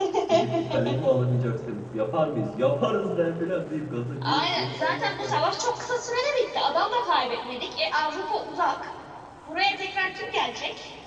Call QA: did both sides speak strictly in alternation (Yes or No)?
No